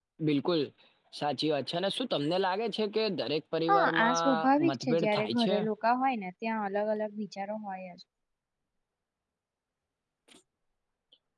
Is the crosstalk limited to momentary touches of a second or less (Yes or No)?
No